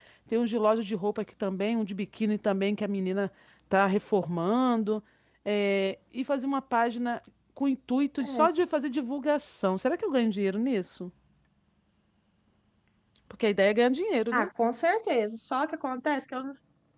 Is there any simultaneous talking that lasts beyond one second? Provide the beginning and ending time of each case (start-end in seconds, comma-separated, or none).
none